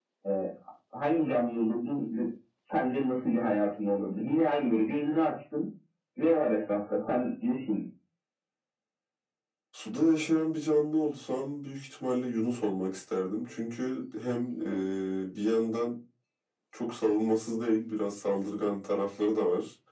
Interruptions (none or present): none